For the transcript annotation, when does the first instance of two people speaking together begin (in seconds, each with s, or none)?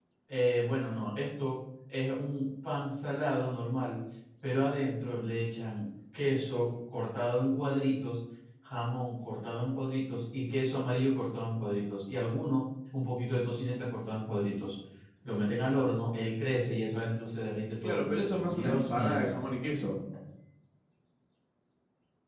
17.8 s